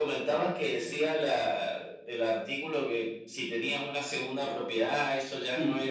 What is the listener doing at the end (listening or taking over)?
taking over